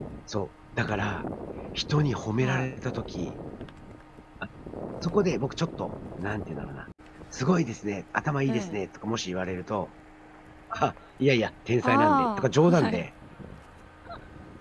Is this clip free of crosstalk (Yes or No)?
No